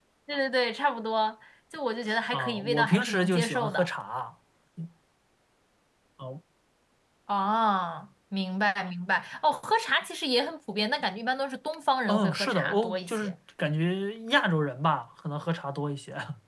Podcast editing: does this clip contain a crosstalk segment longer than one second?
Yes, from 2.3 s

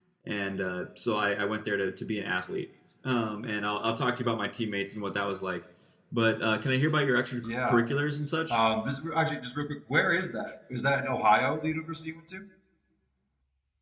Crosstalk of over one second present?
No

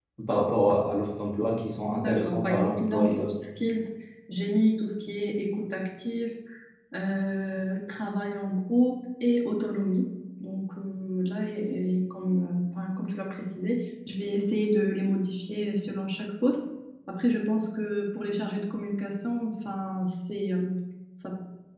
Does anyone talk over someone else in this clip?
Yes, from 2.0 s

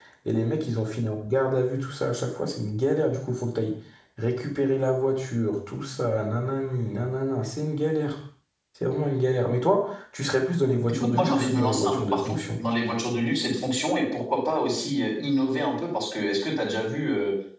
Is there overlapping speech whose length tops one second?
Yes, from 11.0 s

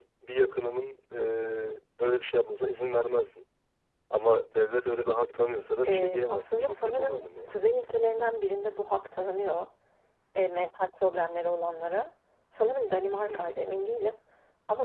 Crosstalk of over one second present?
Yes, from 5.8 s

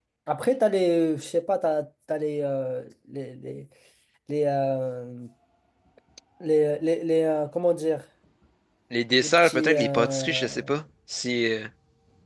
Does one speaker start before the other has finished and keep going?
Yes, from 9.2 s

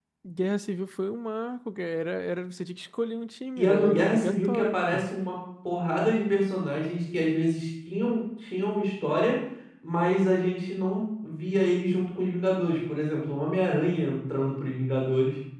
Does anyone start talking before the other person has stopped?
Yes, from 3.6 s

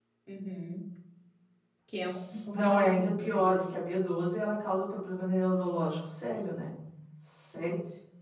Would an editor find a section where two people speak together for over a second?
Yes, from 2.0 s

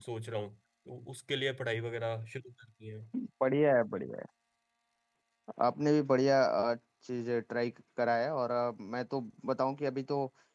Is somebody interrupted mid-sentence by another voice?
No

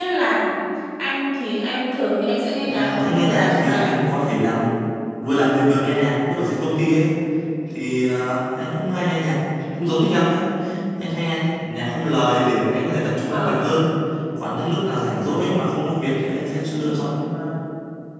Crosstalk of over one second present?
Yes, from 2.6 s

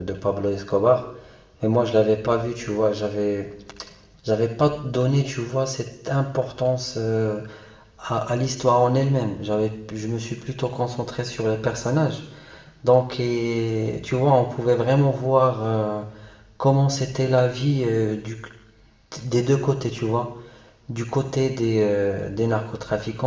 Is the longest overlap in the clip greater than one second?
No

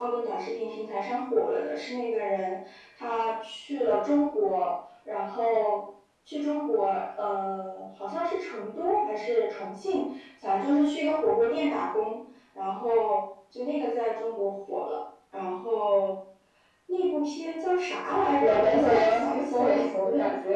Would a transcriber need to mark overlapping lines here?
Yes, from 18.4 s

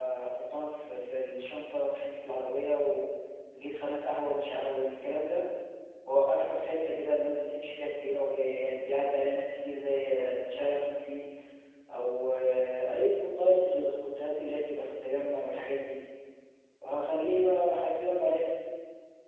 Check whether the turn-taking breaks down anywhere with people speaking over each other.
No

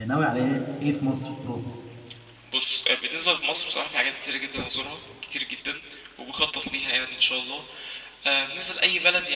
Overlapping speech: No

